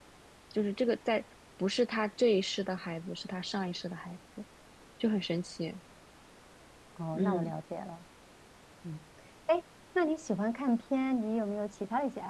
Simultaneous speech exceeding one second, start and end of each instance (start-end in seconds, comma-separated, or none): none